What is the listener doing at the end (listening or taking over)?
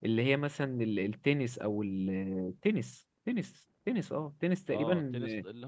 taking over